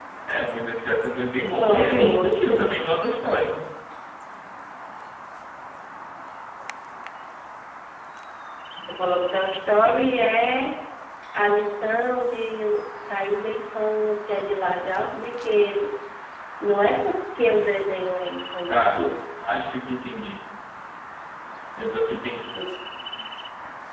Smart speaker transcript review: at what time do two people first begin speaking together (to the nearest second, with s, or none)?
2 s